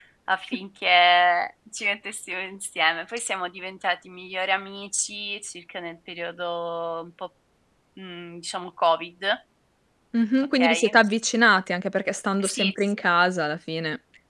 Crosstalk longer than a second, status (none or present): none